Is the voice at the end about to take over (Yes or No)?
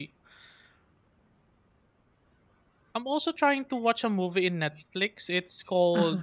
No